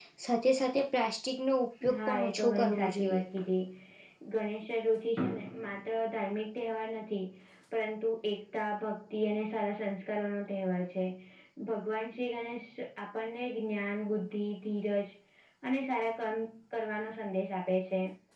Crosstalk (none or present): present